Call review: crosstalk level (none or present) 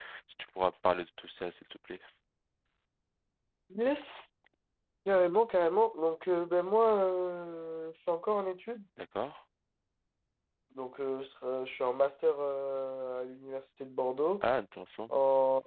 none